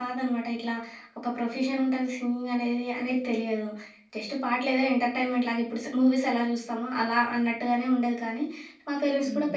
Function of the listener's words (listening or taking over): listening